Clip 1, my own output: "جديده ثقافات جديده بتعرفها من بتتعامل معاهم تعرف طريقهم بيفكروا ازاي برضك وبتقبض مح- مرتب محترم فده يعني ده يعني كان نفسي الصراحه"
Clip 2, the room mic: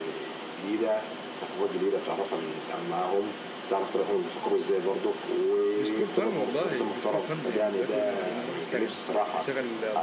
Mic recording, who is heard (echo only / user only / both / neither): both